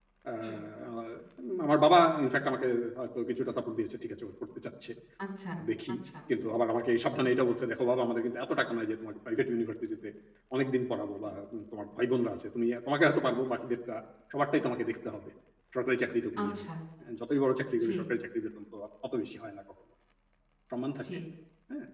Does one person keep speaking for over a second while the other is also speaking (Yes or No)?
No